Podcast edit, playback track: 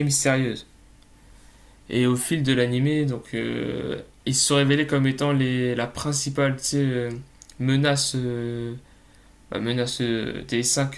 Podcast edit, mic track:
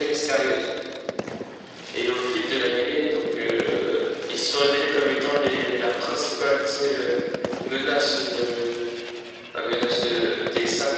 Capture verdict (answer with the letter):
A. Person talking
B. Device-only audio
B